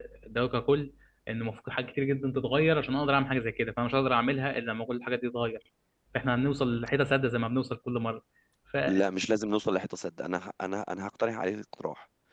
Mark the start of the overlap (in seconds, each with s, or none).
none